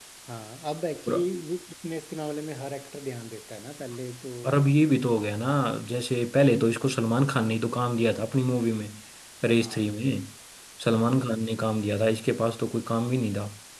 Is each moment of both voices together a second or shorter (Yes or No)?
Yes